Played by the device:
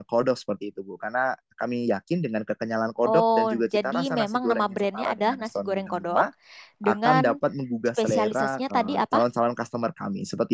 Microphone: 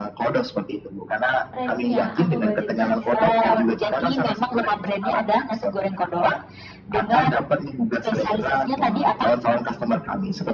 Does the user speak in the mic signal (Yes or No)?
Yes